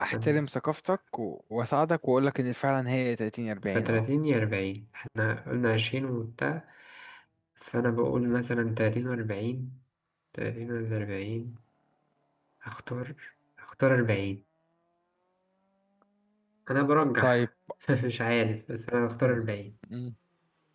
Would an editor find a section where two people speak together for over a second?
No

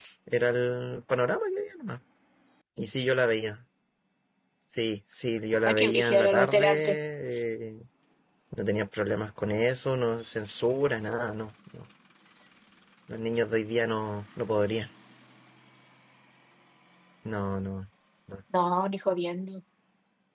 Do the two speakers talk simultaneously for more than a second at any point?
Yes, from 5.7 s

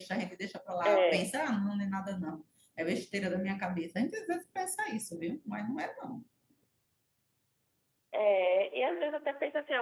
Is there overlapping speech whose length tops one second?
No

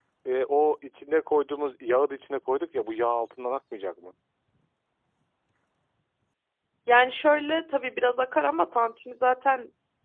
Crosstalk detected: No

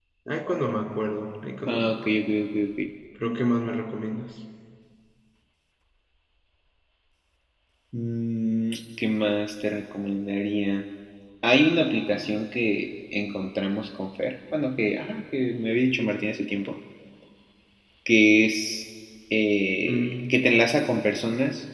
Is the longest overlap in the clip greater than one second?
No

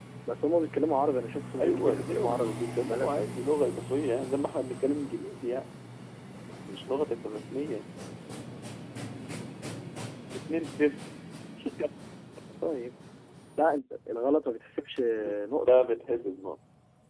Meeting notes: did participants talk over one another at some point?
Yes, from 1.6 s

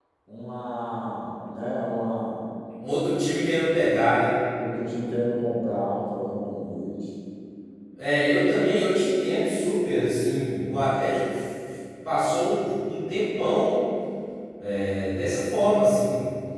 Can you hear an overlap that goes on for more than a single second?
No

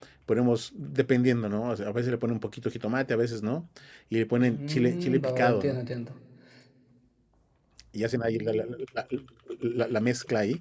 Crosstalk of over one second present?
Yes, from 4.4 s

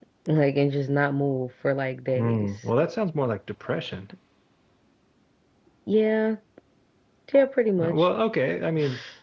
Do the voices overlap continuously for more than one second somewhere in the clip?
No

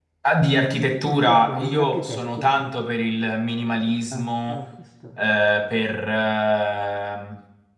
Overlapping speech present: Yes, from 1.1 s

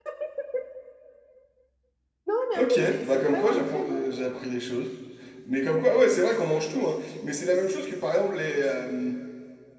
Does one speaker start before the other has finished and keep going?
Yes, from 2.5 s

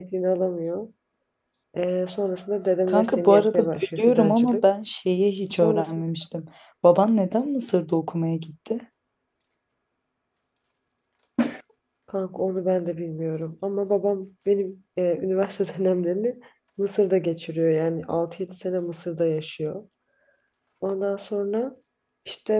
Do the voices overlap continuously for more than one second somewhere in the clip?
Yes, from 2.9 s

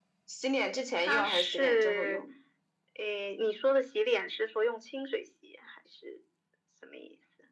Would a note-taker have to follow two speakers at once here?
Yes, from 1.0 s

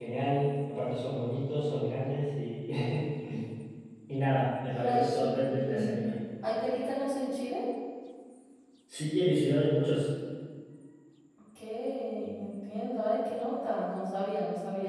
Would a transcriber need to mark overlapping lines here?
Yes, from 4.7 s

